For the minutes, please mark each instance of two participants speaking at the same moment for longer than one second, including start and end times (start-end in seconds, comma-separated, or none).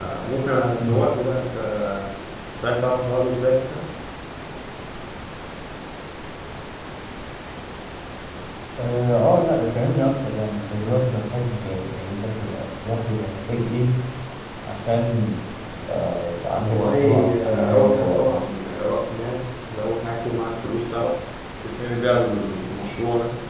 16.6-18.4